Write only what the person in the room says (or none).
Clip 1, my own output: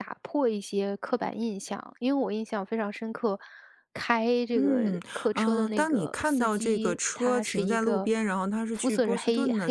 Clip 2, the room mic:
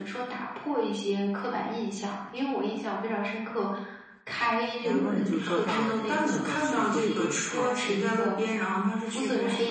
然后你就坐上了这个车去波士顿的车。